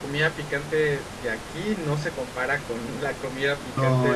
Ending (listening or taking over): taking over